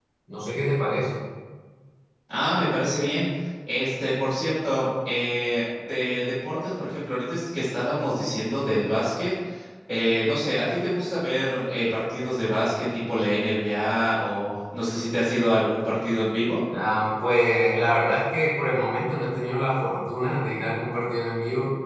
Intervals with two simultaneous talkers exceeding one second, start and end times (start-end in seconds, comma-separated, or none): none